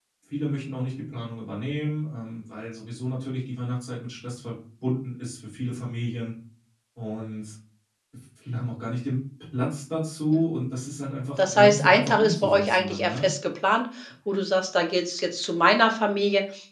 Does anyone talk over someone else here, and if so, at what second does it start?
11.4 s

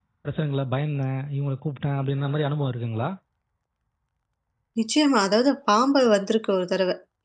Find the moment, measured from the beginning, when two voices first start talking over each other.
none

